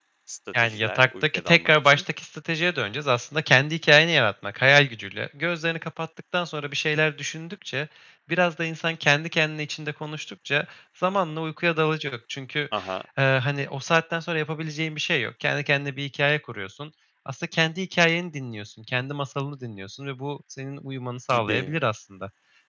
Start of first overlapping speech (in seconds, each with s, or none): 0.6 s